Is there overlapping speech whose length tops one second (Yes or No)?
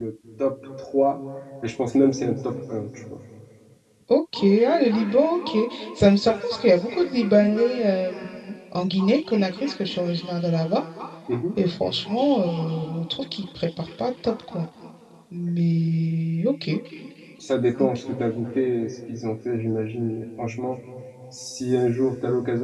No